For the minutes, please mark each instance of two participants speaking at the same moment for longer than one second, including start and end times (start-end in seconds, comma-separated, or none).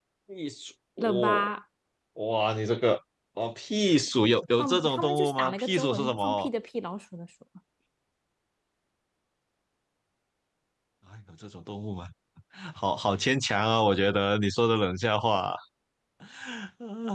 4.6-6.5